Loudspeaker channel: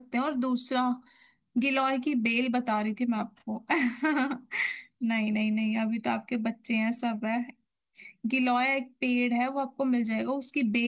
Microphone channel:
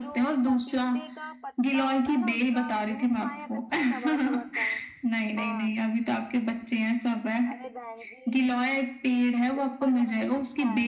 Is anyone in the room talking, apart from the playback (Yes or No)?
Yes